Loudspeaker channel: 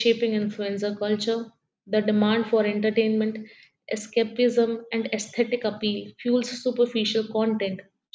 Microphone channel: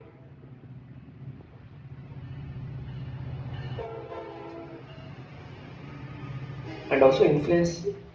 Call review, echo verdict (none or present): none